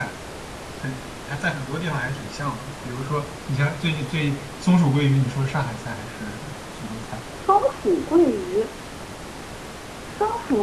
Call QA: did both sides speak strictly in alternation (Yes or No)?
Yes